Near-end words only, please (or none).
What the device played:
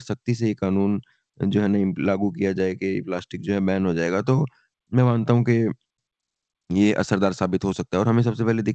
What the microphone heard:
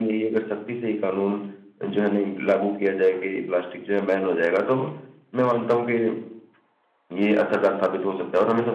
none